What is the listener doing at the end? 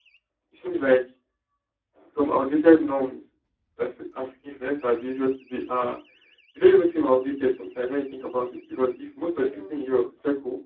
listening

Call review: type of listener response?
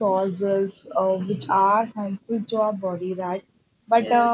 listening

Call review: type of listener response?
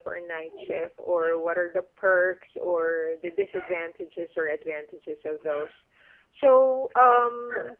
listening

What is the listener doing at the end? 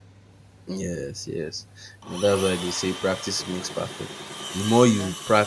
listening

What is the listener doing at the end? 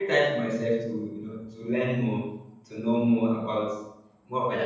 taking over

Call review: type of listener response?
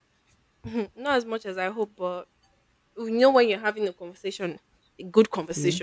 listening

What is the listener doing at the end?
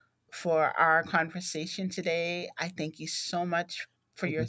listening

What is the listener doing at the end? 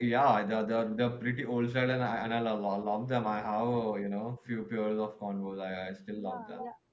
taking over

